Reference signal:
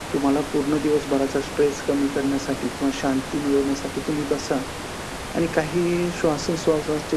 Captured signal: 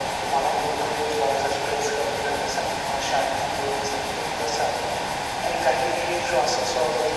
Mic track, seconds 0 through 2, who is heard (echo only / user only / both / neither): echo only